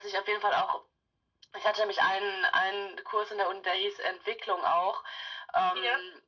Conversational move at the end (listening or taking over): listening